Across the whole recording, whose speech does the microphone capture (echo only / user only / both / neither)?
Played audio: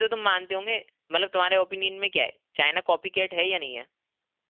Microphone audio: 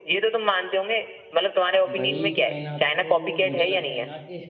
both